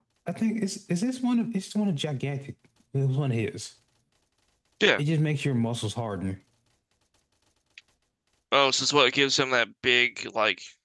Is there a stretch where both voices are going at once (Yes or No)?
No